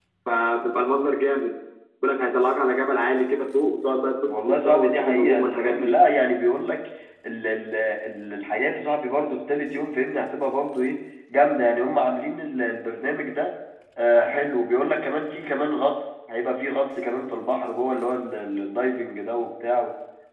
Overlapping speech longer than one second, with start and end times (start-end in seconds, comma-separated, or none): 4.3-5.9